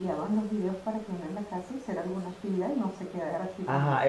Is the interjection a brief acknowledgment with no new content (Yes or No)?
No